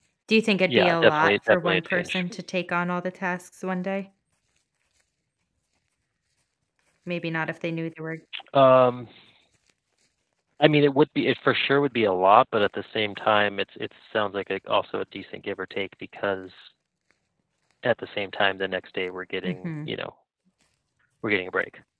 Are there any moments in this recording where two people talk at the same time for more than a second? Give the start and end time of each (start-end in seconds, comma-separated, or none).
0.7-2.2